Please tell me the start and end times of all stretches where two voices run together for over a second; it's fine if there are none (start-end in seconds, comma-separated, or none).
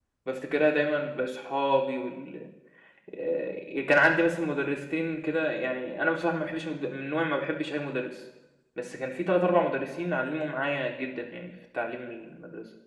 none